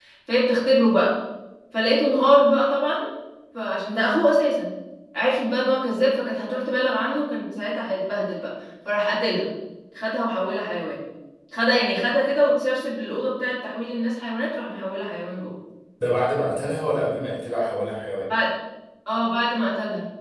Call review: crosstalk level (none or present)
none